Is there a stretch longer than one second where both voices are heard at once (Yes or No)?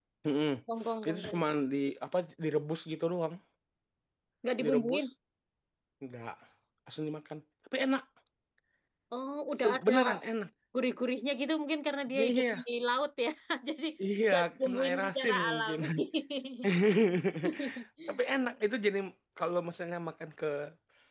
Yes